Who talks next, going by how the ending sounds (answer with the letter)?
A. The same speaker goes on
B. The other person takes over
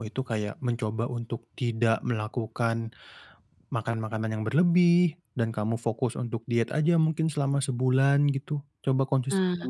A